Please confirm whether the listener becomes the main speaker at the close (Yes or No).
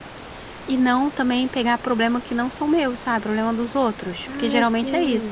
Yes